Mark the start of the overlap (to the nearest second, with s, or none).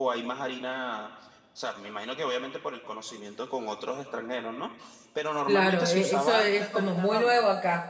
5 s